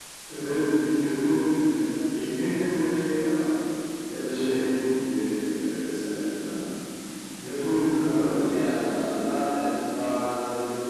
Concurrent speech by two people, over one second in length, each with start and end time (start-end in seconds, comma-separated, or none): 7.9-9.2